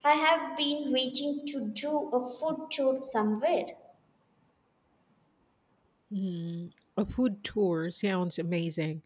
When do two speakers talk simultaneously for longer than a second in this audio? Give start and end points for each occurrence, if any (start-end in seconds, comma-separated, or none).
none